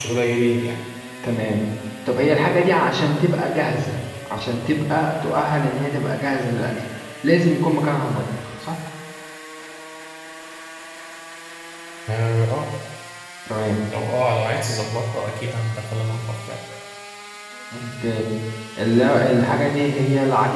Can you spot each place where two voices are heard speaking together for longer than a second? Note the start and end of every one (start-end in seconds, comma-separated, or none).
none